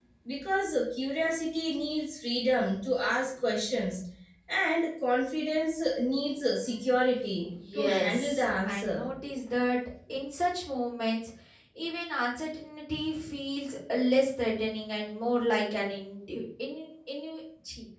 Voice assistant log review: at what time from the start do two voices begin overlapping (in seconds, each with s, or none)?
7.5 s